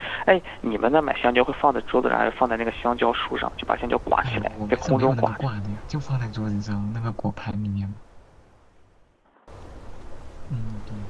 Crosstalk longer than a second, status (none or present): present